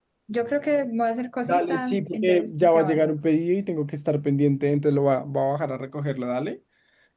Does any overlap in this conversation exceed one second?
Yes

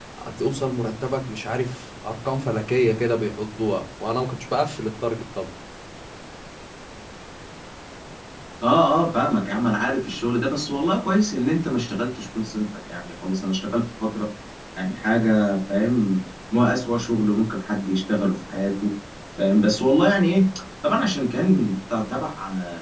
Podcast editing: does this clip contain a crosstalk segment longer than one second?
No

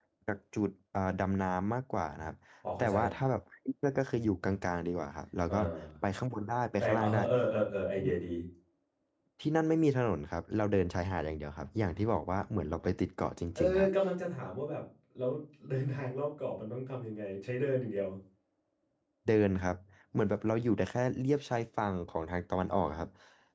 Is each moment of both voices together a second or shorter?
Yes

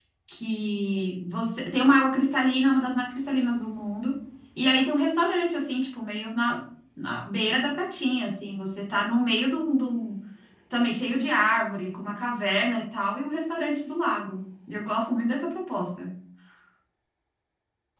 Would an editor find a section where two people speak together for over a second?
No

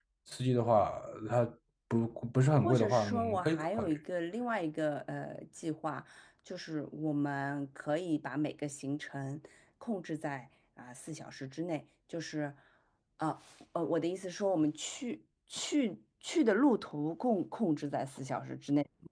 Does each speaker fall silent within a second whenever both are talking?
No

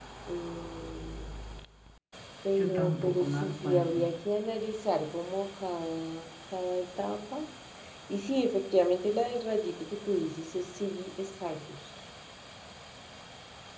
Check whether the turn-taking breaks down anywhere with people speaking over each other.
Yes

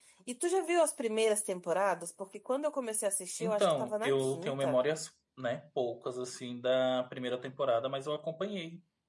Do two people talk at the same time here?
Yes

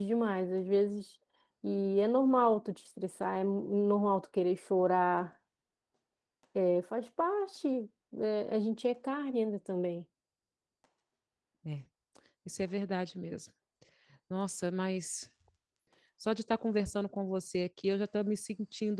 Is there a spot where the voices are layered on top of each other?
No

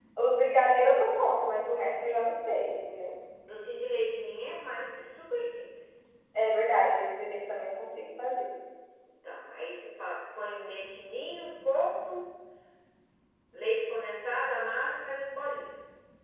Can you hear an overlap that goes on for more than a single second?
No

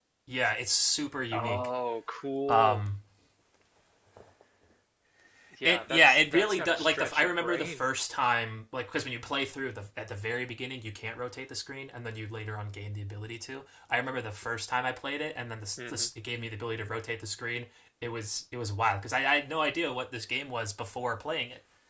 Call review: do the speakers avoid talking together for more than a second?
No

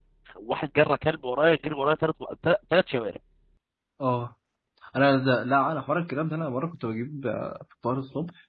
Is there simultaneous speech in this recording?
No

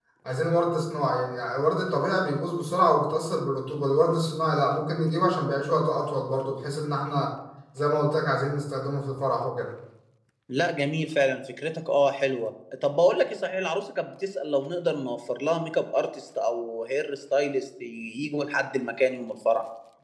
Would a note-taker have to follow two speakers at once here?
No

